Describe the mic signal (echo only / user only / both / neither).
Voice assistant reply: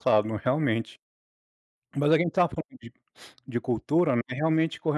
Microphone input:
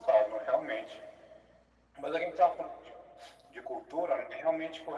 echo only